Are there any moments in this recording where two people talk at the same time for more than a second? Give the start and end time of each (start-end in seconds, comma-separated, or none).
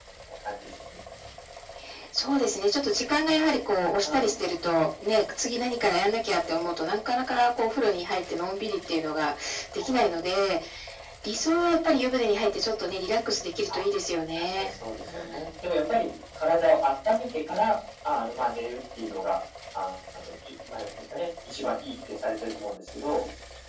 none